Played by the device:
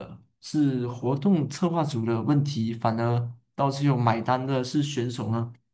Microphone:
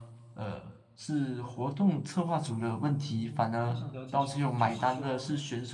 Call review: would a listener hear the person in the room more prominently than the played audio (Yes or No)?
No